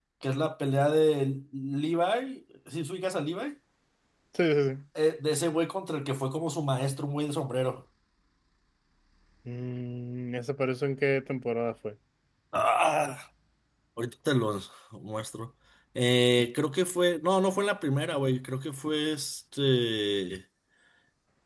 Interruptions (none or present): none